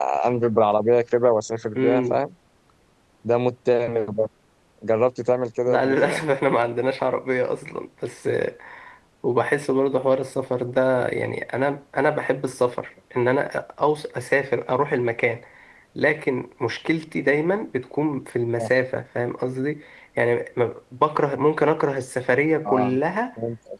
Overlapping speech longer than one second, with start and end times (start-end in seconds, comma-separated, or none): none